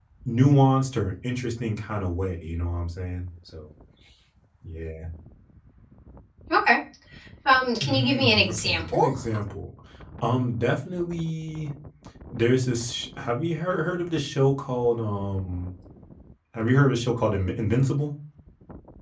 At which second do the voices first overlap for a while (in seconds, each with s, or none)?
7.8 s